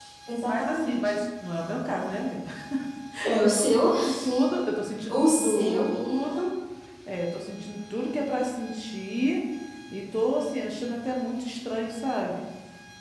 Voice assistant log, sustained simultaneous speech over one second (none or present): present